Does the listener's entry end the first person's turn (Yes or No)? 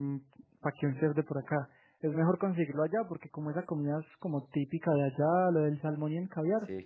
No